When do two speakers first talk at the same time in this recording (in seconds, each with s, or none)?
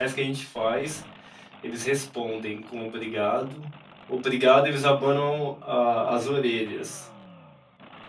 none